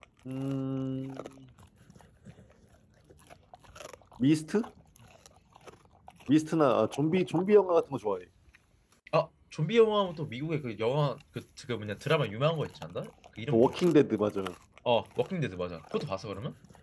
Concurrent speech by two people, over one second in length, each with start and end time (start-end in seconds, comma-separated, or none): none